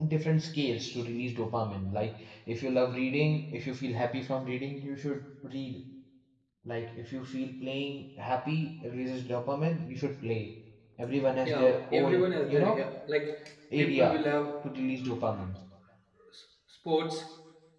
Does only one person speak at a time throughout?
No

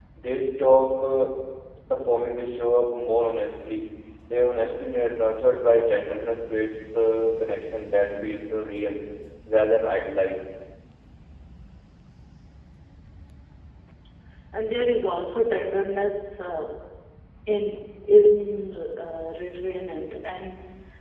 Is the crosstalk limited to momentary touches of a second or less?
Yes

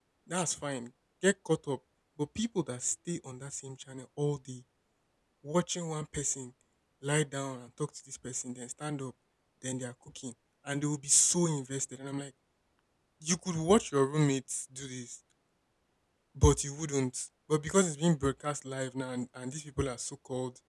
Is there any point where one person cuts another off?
No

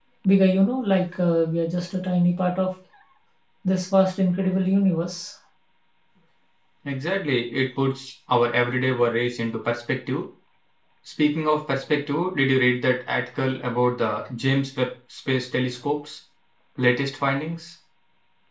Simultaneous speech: No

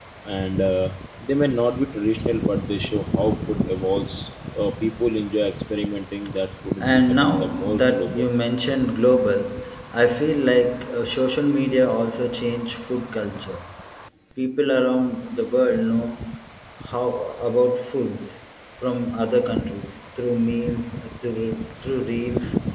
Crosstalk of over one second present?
Yes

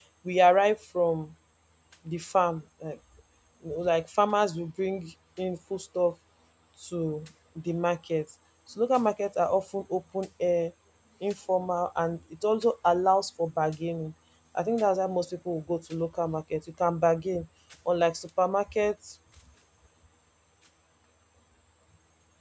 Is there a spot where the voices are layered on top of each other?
No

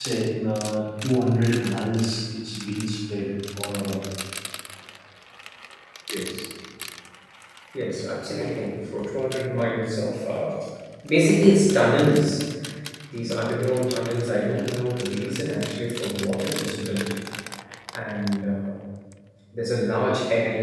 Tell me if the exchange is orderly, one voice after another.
Yes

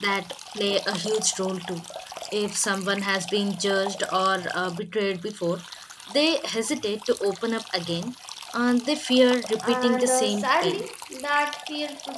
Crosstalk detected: Yes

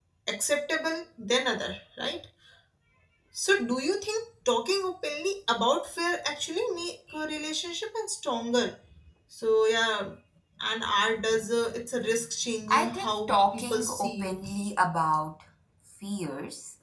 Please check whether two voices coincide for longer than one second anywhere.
Yes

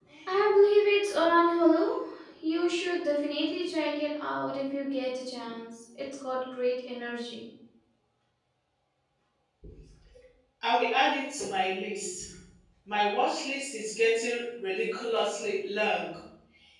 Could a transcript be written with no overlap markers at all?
Yes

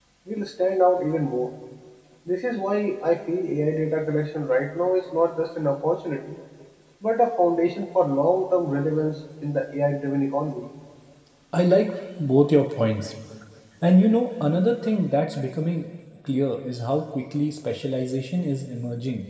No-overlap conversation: Yes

